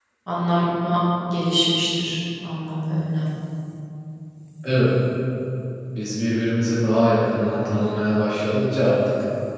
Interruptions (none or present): none